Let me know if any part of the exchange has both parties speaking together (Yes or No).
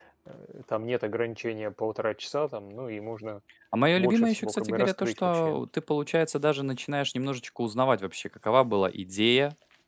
Yes